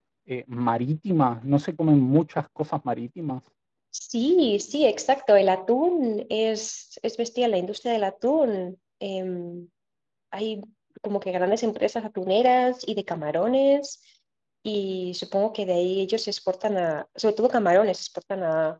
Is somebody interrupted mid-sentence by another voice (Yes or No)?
No